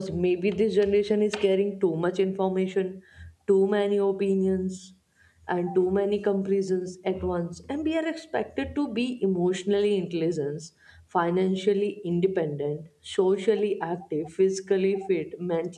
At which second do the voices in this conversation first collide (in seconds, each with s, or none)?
none